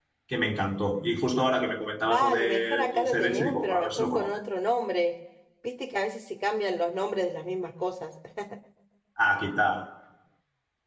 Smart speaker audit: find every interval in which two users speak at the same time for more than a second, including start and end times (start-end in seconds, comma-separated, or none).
2.1-4.4